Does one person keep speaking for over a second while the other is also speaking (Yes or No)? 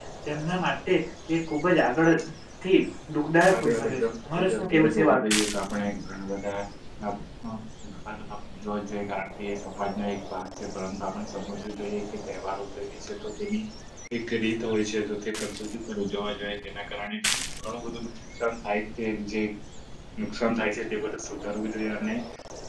Yes